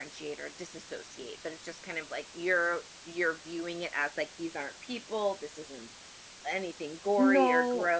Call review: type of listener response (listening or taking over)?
listening